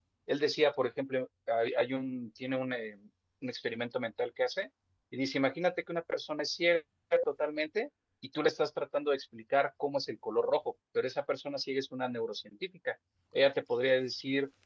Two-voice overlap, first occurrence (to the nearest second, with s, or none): none